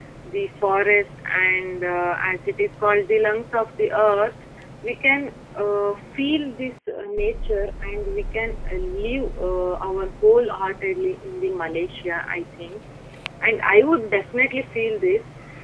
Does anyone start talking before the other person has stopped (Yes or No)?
No